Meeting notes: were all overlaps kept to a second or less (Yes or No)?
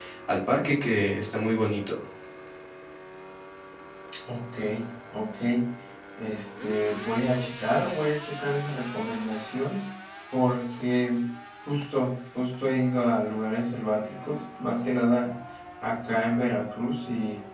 Yes